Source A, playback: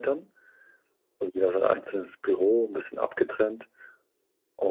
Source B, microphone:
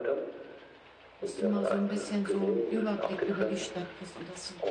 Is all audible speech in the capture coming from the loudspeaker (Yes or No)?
No